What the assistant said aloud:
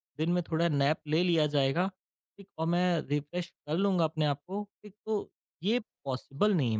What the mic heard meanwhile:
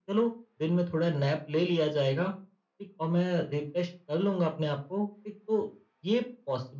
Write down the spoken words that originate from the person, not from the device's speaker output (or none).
none